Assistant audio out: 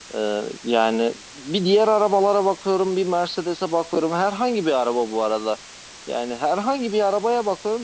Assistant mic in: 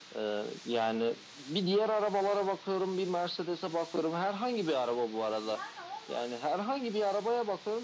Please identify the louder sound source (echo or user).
echo